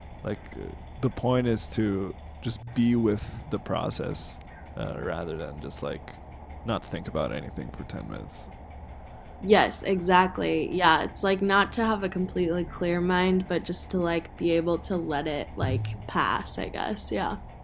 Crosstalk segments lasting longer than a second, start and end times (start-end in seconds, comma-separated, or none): none